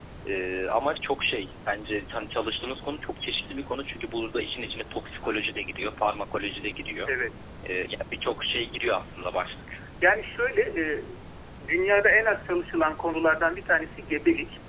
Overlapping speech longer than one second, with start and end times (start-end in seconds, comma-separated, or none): none